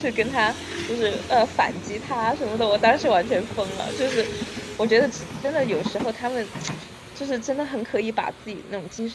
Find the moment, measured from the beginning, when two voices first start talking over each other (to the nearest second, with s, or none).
none